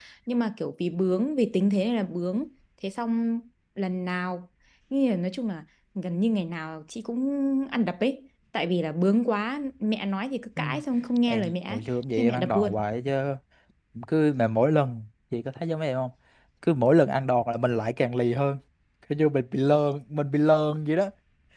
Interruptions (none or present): present